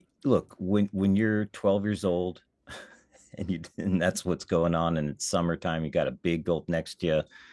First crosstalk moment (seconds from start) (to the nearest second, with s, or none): none